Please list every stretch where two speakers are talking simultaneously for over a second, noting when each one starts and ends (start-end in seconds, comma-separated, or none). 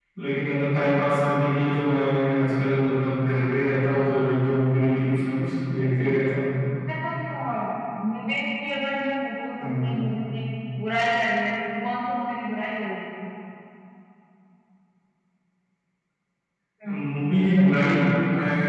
none